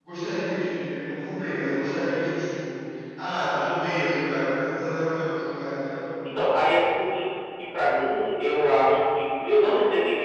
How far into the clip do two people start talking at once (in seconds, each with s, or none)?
none